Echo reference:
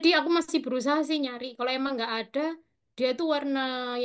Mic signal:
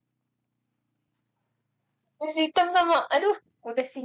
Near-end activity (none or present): present